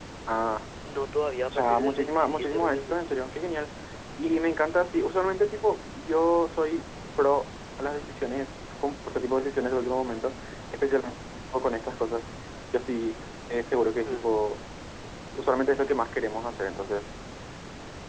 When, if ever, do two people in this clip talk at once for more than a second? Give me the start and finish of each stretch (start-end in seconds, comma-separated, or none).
1.5-3.0